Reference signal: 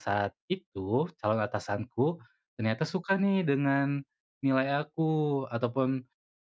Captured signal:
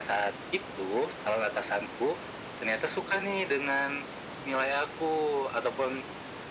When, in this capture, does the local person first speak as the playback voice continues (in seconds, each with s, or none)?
none